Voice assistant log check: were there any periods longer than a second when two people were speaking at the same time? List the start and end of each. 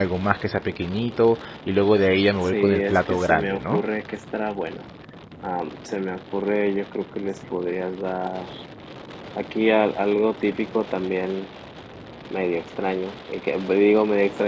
2.5-3.8

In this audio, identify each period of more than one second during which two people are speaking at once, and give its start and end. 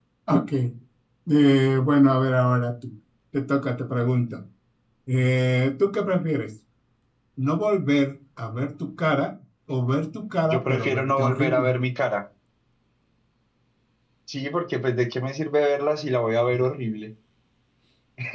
10.5-11.7

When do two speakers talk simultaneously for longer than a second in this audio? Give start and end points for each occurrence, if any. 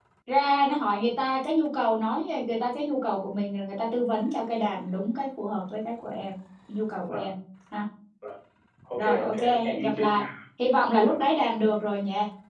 9.0-10.2

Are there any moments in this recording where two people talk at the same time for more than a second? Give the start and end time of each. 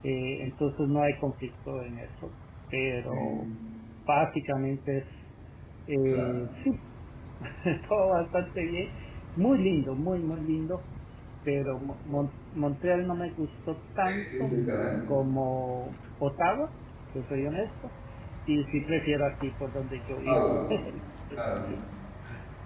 none

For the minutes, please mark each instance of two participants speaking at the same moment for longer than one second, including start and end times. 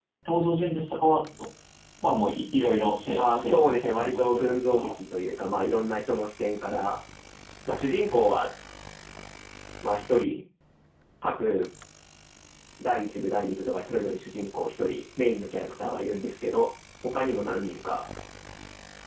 3.2-5.0

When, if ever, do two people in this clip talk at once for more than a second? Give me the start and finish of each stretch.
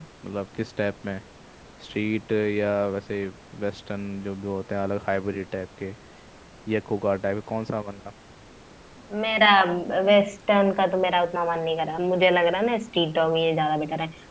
none

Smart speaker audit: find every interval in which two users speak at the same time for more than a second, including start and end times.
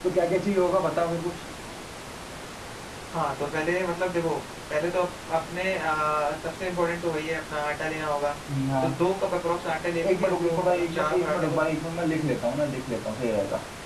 10.1-11.6

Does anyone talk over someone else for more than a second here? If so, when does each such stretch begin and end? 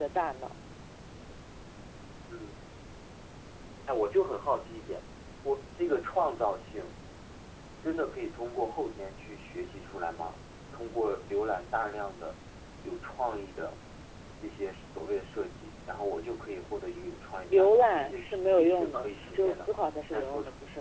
17.5-19.8

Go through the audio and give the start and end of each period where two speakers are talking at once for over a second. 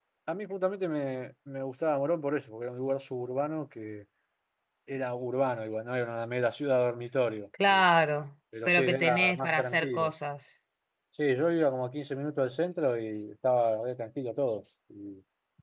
8.7-10.1

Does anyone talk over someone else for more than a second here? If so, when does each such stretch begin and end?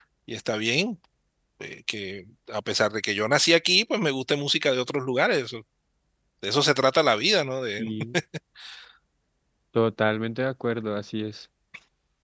none

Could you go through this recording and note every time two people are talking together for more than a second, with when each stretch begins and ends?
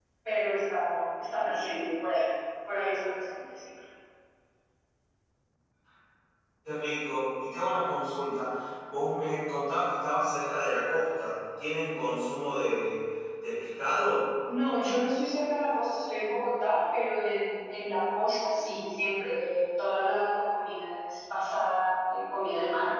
none

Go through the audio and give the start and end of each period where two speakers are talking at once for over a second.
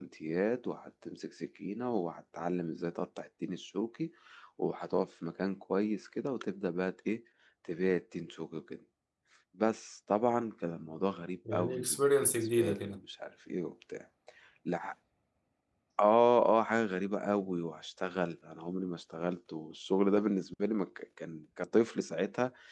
11.5-13.0

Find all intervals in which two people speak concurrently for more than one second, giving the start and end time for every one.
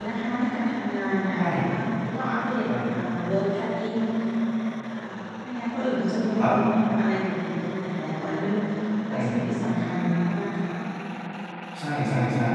none

